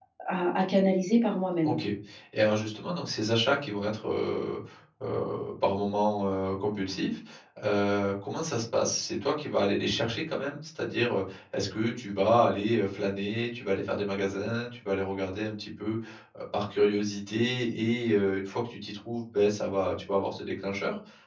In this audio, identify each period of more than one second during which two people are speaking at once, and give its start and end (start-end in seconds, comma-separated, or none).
none